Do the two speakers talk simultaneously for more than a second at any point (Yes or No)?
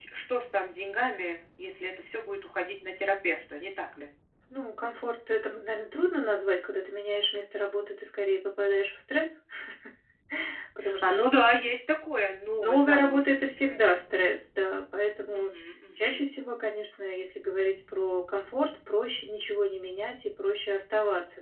Yes